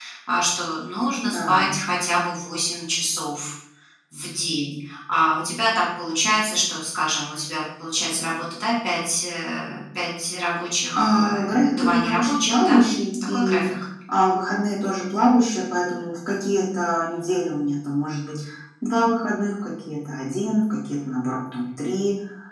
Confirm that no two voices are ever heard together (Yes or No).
No